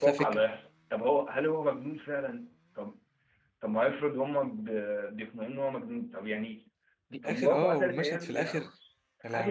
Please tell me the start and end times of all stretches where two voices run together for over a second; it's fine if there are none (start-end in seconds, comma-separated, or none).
7.2-8.6